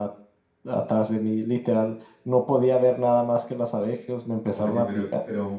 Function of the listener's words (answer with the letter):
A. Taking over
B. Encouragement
A